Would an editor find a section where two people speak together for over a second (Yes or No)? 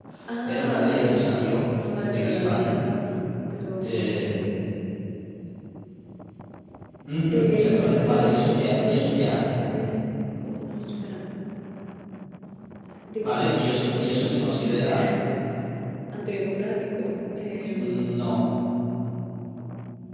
Yes